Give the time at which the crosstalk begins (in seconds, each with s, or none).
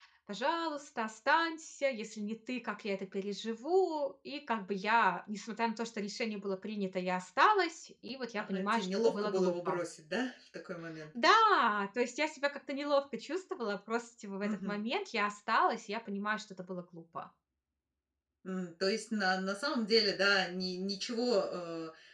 8.4 s